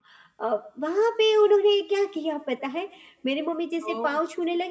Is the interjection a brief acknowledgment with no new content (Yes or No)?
Yes